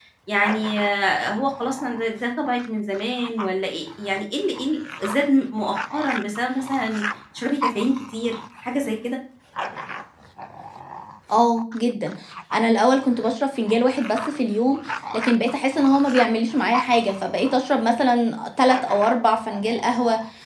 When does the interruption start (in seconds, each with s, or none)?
none